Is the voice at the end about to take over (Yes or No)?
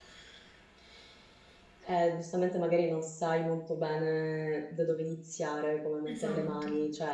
No